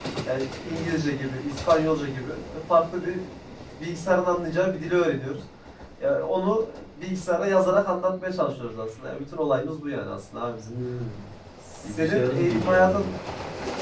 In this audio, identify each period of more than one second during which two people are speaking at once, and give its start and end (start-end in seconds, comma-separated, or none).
11.8-13.1